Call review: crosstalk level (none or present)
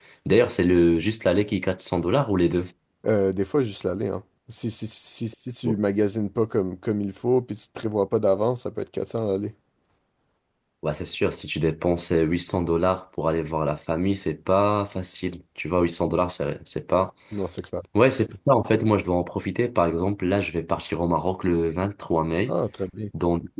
none